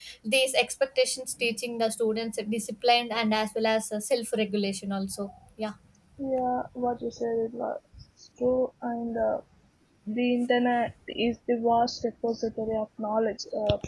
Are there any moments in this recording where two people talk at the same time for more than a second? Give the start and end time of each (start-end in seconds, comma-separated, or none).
none